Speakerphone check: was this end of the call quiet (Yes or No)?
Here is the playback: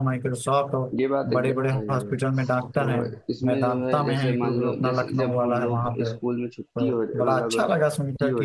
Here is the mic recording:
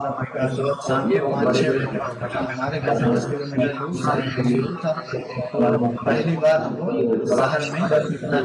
No